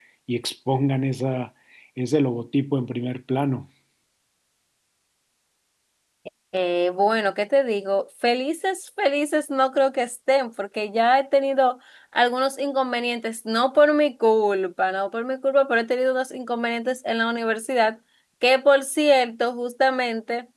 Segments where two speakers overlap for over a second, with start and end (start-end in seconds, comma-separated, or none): none